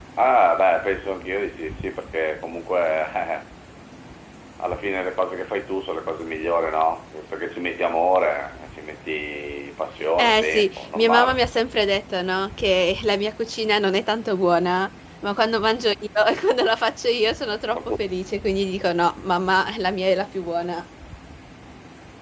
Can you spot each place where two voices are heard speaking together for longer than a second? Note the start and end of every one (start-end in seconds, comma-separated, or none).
10.2-11.4